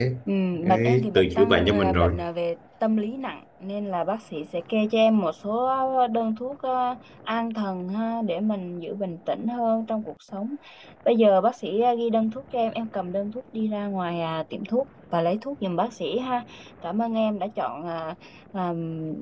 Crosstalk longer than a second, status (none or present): present